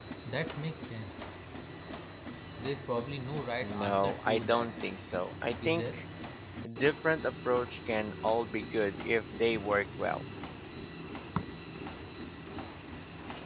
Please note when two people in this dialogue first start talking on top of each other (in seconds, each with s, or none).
3.6 s